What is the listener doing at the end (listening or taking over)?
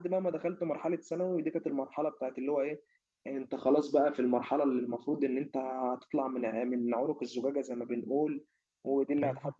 listening